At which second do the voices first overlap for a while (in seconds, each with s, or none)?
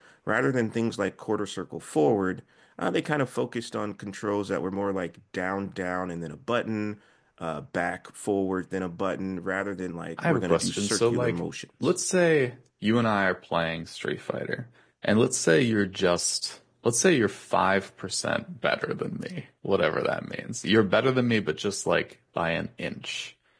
10.2 s